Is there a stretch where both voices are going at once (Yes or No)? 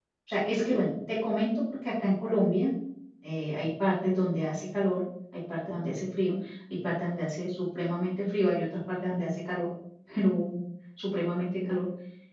No